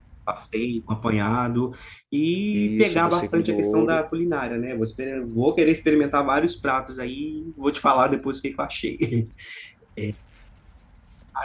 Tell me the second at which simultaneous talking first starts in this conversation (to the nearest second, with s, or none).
3 s